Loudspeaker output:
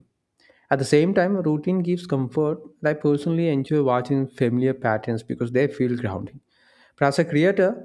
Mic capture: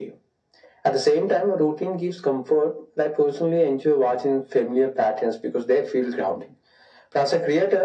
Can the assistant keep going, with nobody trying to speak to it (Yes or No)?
Yes